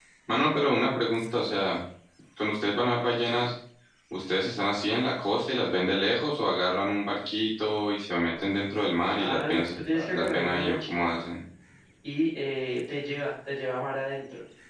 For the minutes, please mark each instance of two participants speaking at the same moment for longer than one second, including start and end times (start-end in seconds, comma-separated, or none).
9.2-11.1